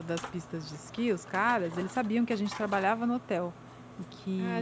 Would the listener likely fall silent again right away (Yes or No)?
No